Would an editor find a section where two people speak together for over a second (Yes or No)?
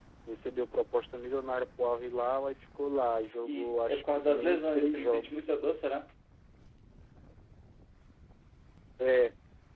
Yes